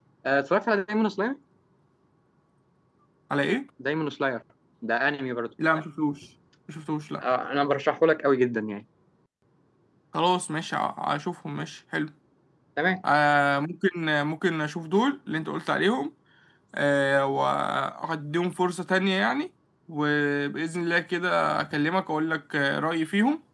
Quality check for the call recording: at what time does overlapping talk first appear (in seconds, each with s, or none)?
none